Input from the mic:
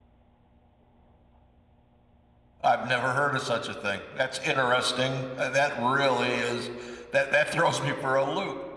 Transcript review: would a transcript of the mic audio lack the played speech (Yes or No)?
Yes